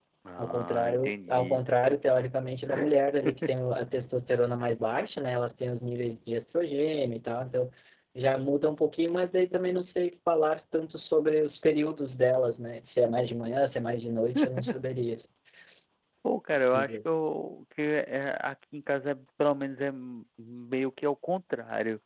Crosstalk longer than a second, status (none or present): present